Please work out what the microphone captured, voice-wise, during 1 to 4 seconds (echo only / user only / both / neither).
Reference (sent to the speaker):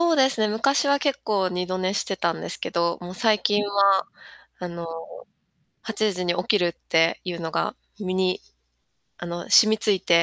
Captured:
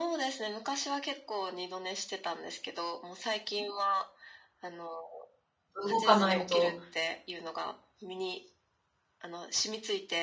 echo only